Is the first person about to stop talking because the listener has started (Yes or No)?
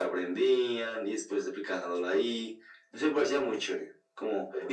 No